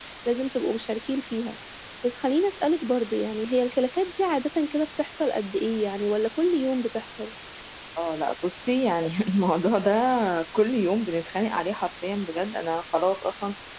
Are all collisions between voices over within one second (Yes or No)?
Yes